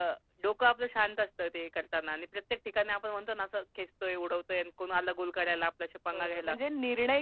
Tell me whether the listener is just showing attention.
No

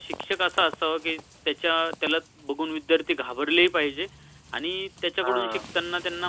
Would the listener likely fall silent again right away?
Yes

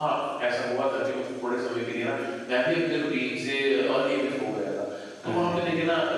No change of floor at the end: Yes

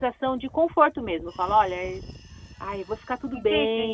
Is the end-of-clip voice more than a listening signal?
Yes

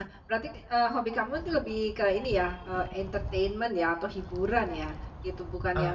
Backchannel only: Yes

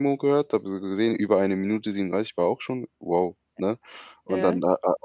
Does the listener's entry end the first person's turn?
No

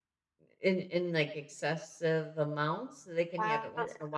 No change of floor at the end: No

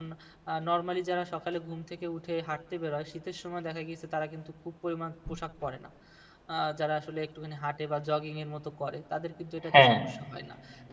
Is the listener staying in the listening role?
Yes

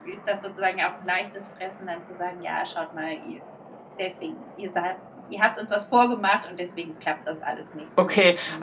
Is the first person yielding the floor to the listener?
Yes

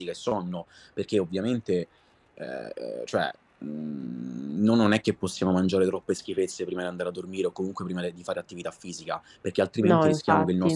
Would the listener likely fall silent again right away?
Yes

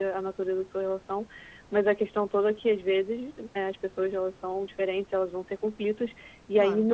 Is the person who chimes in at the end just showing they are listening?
Yes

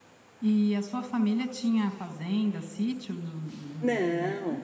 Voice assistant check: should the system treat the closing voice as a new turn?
Yes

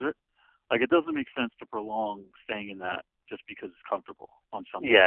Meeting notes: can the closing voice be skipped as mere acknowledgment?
No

